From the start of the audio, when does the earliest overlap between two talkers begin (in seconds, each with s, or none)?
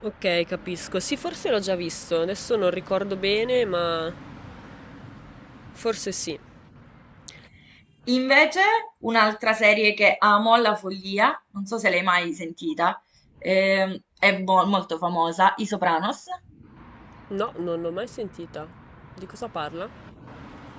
none